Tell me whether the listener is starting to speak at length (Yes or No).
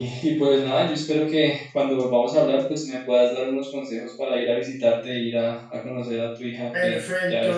Yes